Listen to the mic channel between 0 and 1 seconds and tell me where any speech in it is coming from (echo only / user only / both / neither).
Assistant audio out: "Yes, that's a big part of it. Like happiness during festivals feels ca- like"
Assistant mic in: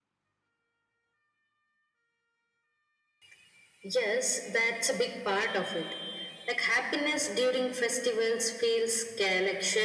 neither